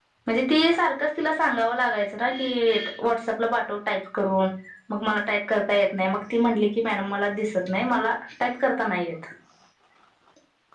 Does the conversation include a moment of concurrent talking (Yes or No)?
No